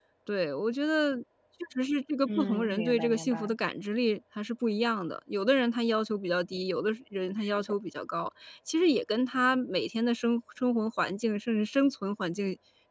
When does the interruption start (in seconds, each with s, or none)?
2.3 s